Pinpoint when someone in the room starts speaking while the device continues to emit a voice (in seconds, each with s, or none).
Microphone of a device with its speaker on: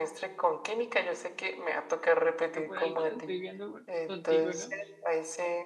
2.5 s